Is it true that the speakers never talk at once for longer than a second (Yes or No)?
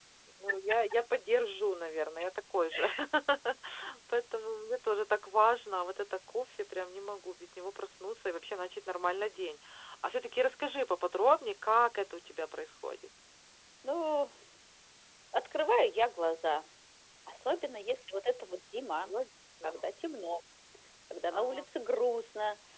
Yes